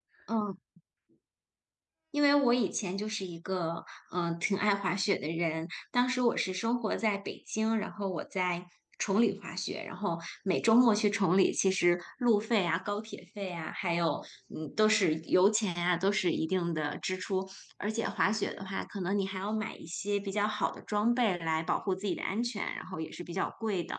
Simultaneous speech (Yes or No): No